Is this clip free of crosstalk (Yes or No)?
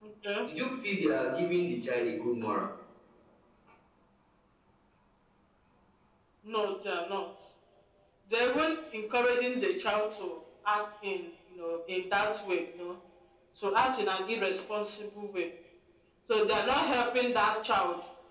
Yes